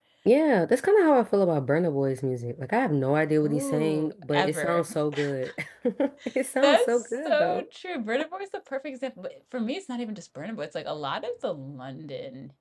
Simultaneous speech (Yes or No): Yes